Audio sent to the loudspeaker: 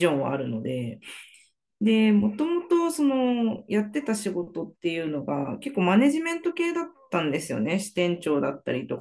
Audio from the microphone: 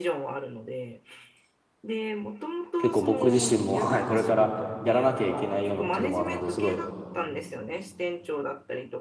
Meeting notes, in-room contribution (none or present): present